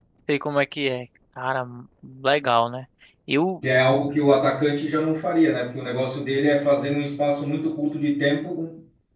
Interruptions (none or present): none